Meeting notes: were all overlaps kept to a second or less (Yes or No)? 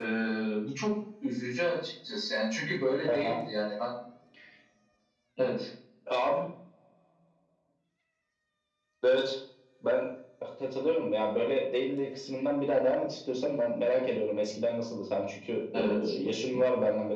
Yes